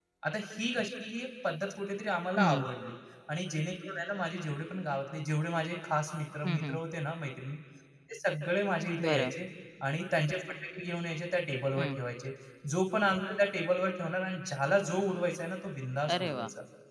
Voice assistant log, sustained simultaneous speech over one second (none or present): none